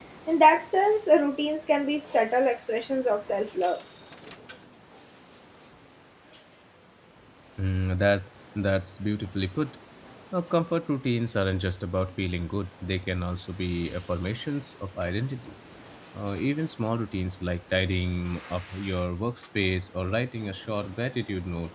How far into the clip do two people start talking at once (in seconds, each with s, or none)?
none